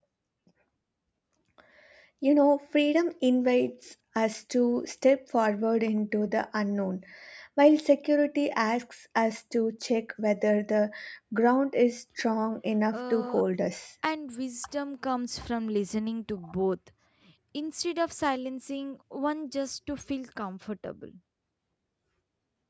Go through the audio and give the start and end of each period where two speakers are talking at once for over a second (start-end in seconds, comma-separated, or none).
none